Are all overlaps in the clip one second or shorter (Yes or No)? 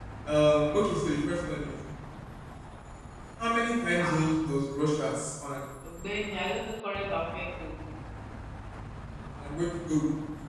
Yes